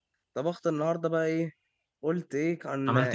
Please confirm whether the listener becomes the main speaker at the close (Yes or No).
No